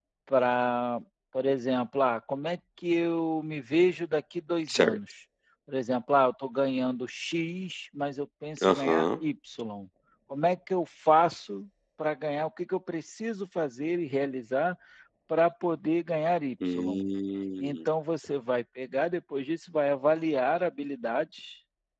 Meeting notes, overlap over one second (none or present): none